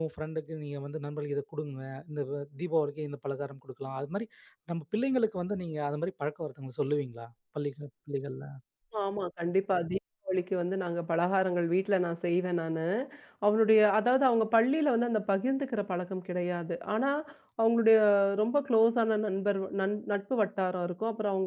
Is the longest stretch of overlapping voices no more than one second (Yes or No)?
Yes